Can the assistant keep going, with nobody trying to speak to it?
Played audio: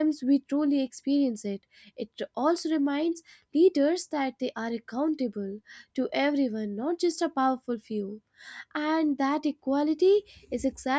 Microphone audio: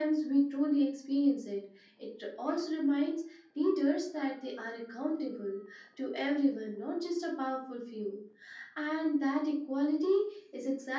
Yes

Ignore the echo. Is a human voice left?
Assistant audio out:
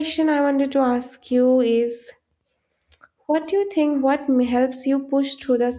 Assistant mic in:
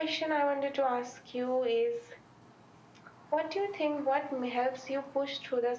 No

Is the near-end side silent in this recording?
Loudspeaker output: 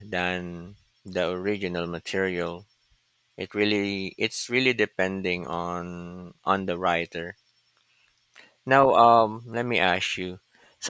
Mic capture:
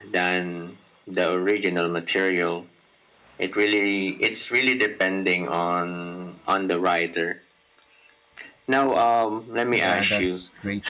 No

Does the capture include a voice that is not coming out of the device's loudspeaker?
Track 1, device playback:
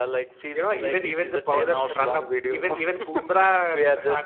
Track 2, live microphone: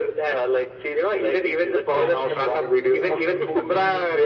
Yes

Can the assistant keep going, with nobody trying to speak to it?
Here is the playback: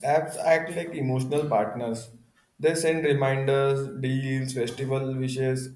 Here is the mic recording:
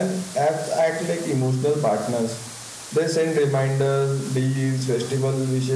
Yes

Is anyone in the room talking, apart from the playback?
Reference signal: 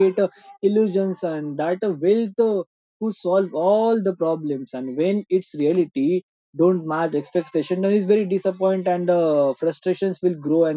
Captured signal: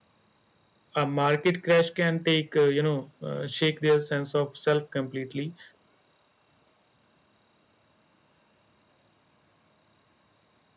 Yes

